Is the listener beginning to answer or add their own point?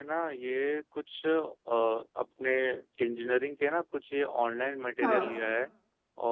No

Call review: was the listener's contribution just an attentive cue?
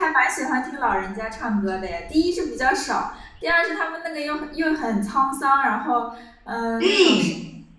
Yes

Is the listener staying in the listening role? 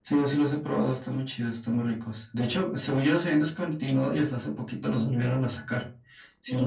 No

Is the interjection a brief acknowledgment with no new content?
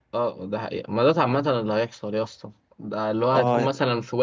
Yes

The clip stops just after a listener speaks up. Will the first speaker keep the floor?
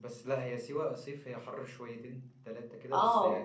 No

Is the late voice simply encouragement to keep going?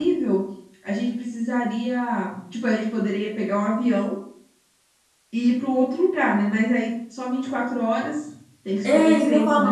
No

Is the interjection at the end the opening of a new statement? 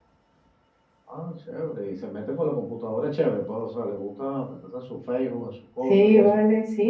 Yes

